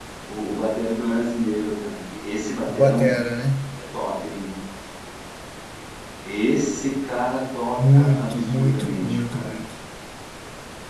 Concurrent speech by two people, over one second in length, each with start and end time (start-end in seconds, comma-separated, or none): 7.9-9.6